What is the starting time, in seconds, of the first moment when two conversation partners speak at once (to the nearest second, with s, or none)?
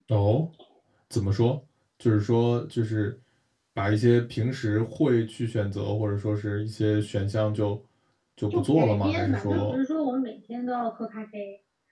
9 s